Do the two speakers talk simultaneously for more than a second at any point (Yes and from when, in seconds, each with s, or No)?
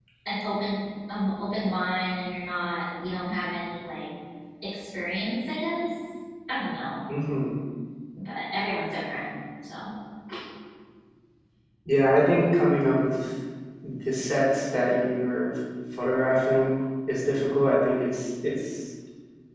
No